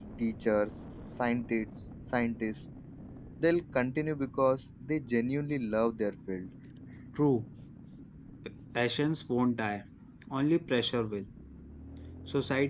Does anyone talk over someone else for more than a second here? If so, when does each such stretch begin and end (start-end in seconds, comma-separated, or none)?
none